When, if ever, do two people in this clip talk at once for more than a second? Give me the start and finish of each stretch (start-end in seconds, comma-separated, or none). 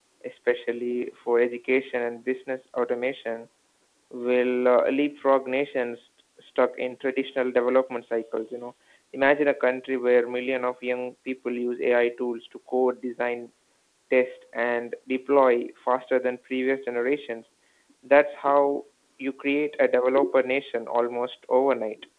none